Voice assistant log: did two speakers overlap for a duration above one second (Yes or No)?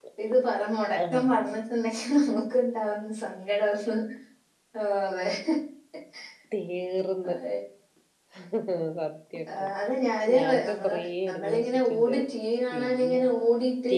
Yes